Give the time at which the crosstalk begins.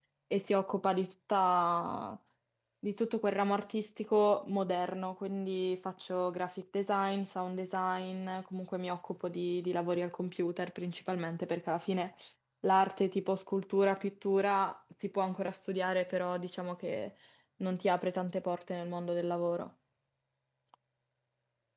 none

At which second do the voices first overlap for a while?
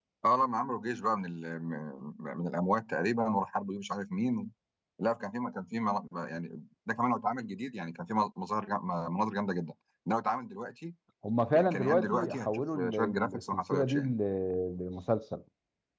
11 s

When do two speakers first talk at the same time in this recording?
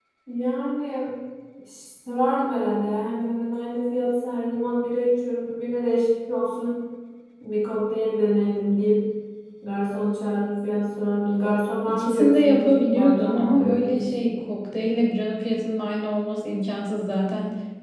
12 s

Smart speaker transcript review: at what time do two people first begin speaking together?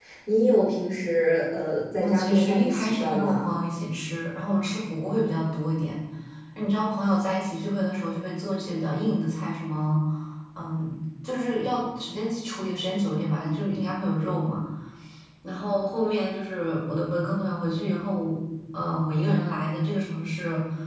2 s

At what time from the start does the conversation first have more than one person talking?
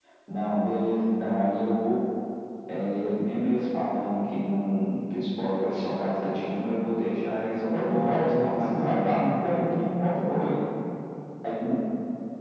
8 s

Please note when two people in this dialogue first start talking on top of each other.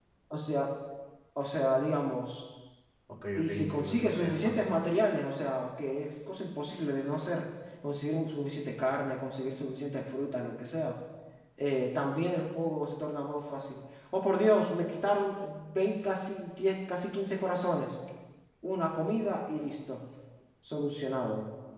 3 s

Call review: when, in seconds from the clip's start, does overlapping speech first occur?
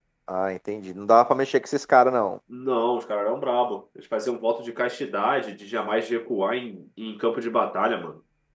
none

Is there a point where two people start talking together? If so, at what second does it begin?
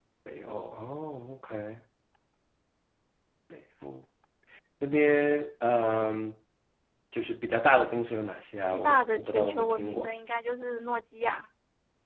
9 s

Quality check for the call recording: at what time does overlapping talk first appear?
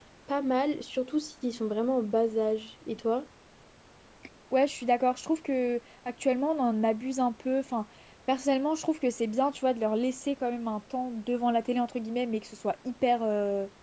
none

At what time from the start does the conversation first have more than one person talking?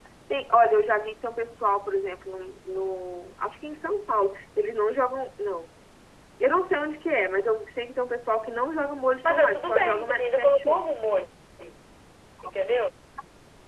9 s

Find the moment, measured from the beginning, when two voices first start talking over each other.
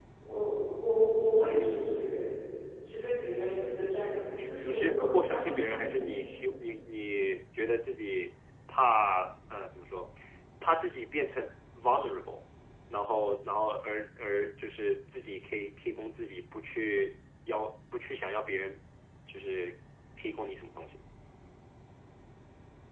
5 s

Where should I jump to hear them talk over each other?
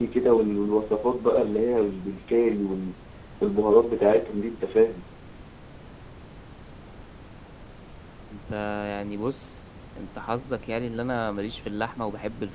none

